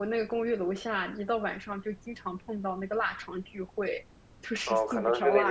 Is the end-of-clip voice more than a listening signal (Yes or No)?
Yes